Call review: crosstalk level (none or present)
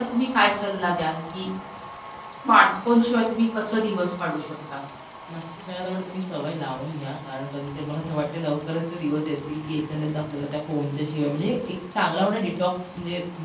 none